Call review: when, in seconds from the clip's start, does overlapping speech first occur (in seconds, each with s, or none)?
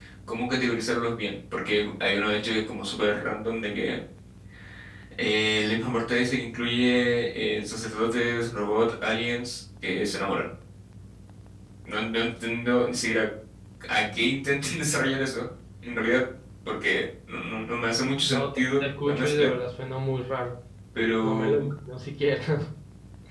18.2 s